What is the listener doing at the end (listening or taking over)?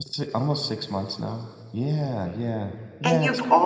taking over